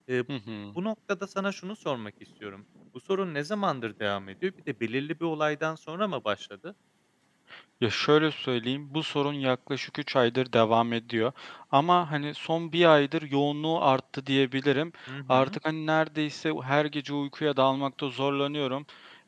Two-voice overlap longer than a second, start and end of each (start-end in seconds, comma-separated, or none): none